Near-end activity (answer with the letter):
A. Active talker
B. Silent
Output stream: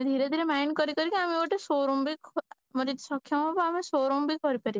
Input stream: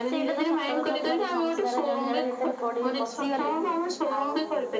A